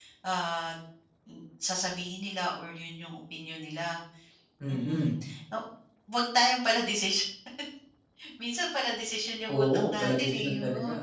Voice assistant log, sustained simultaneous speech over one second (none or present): present